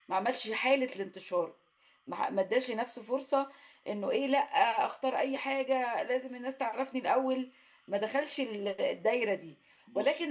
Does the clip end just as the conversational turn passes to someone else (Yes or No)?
No